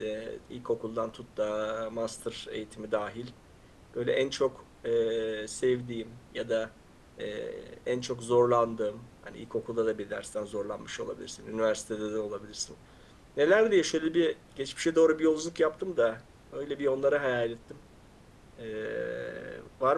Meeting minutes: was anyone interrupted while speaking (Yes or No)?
No